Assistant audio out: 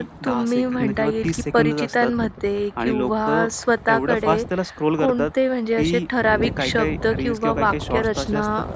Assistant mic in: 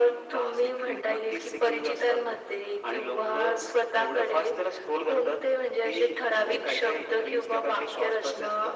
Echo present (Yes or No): Yes